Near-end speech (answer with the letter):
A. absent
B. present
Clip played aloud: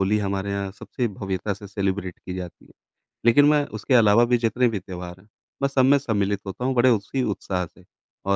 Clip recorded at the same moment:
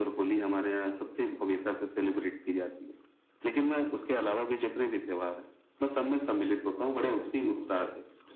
A